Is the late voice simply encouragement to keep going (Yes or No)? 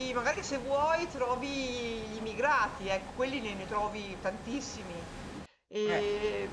Yes